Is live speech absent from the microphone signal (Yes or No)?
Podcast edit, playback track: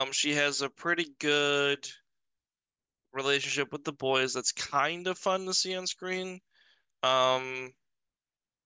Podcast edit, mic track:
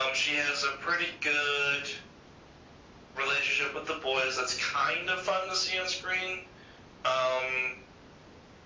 Yes